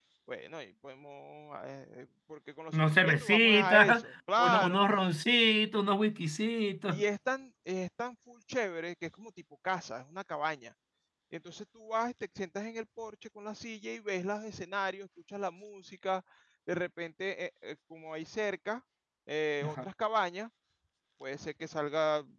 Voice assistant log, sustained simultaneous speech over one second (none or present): present